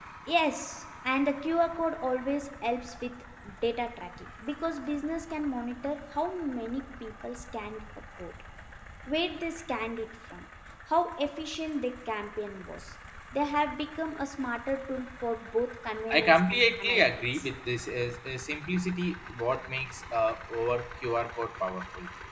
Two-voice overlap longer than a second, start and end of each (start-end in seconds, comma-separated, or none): 16.1-17.4